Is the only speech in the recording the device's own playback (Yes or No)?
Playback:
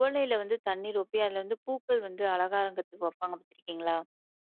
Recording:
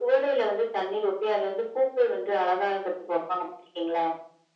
Yes